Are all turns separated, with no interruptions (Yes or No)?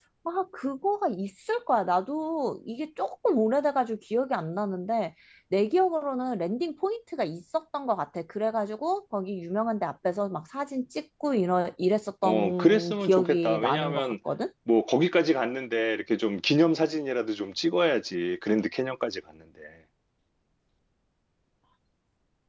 No